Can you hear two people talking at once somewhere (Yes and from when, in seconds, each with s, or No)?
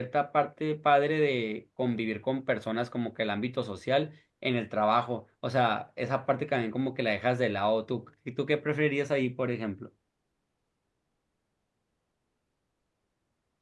No